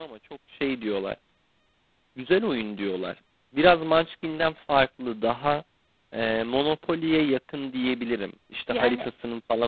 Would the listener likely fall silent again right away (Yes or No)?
Yes